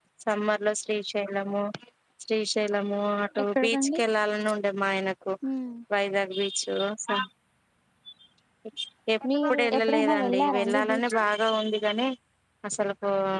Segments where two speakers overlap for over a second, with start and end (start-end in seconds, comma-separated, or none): 9.3-11.3